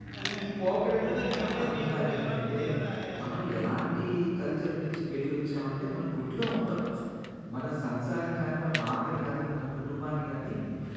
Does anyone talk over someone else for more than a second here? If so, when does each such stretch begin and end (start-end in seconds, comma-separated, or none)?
1.0-2.6